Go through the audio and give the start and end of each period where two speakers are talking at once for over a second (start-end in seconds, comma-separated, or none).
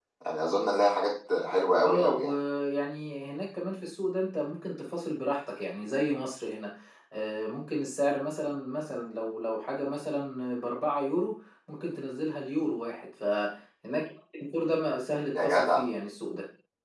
none